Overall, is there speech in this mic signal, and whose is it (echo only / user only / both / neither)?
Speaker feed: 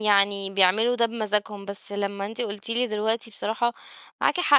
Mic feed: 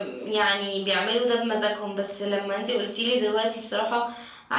echo only